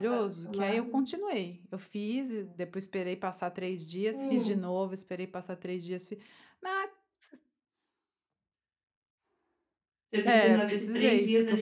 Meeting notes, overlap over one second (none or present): present